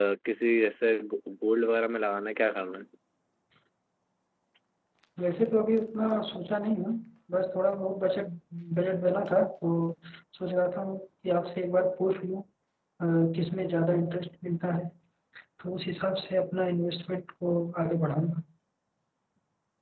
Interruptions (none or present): none